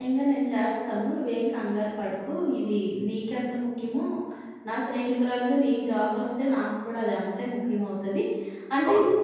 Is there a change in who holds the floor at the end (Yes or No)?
No